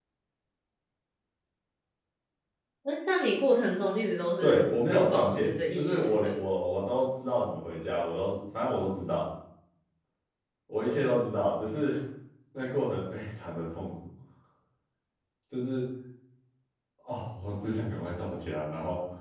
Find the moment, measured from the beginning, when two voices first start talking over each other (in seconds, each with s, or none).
4.4 s